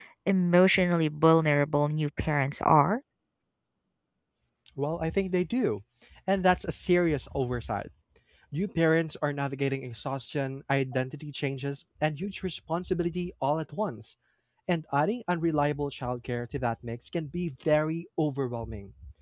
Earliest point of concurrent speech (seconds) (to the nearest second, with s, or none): none